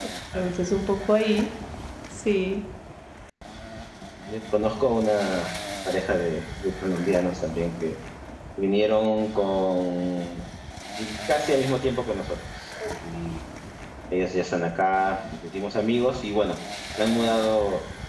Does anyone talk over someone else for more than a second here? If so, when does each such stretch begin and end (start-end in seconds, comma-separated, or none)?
none